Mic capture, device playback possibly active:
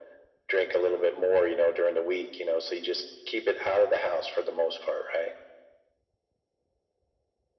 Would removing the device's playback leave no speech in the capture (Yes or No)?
Yes